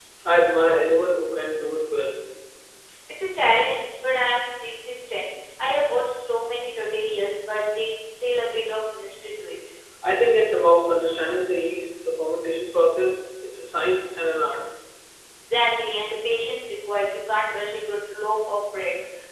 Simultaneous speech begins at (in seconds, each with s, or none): none